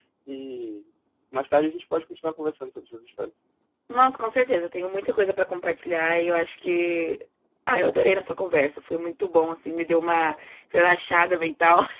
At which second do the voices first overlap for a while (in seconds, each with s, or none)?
none